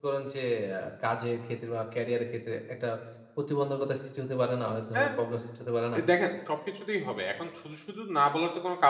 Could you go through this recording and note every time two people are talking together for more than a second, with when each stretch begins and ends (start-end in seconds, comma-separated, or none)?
none